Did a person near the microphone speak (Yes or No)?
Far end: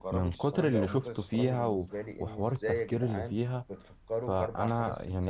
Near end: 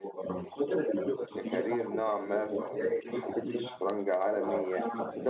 Yes